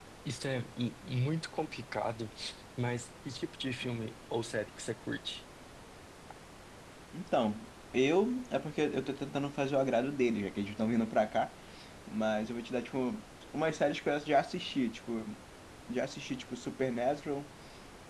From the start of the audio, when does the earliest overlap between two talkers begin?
none

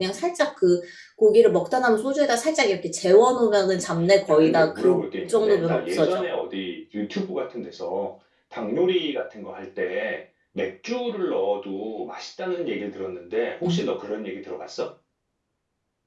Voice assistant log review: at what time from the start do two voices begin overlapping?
4.3 s

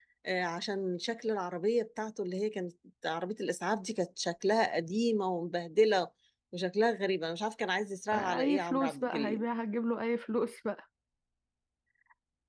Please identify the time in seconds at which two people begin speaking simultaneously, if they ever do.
8.1 s

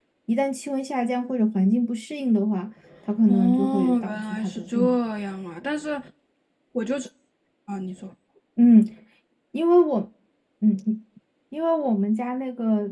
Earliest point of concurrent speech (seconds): 3.3 s

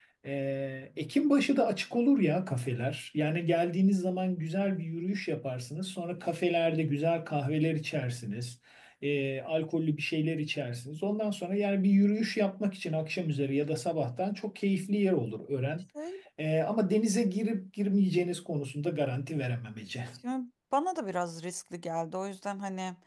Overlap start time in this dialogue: none

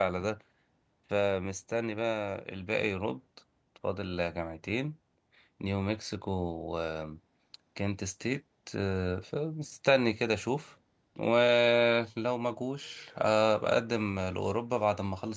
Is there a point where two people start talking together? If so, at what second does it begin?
none

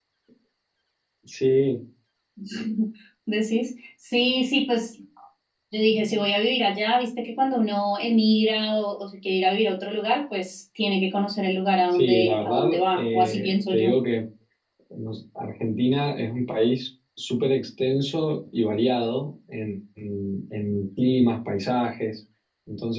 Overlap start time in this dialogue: 11.9 s

